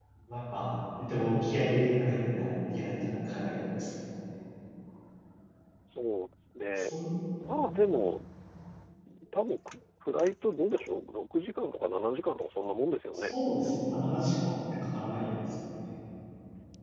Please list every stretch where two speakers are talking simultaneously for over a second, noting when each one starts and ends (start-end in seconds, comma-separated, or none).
none